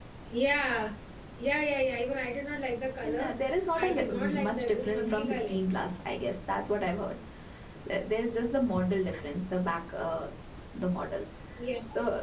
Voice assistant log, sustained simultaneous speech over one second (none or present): present